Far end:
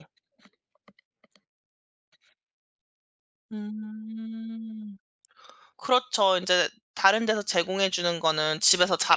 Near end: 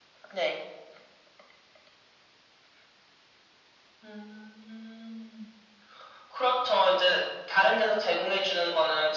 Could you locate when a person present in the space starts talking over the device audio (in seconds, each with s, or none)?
none